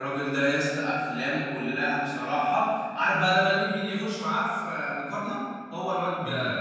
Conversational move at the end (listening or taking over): listening